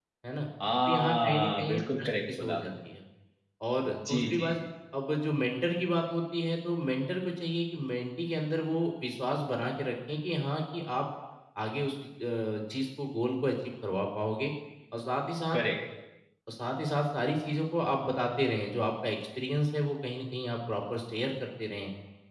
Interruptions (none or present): present